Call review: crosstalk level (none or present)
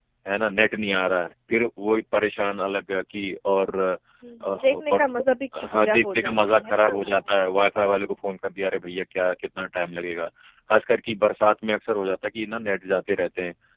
present